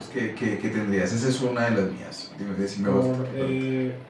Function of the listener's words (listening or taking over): taking over